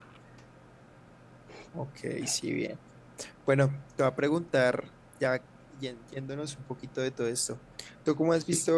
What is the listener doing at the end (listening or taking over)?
listening